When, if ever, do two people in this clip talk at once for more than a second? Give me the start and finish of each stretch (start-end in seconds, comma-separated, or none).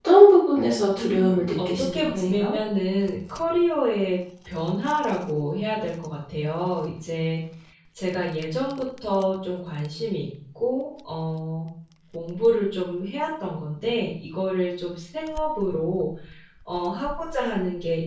1.0-2.5